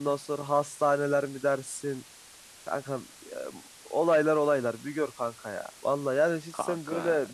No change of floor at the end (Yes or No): Yes